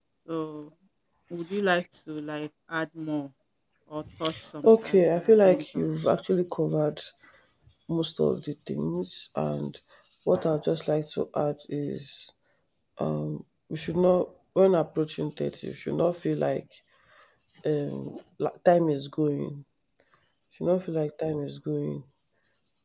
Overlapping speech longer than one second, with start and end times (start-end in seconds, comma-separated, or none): 4.6-5.9